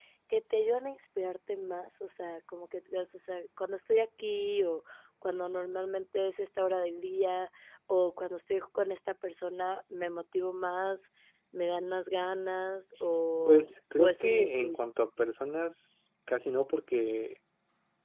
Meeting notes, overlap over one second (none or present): present